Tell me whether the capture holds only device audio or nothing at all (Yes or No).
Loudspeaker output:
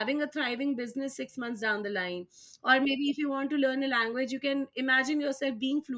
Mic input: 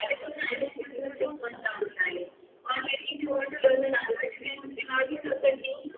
No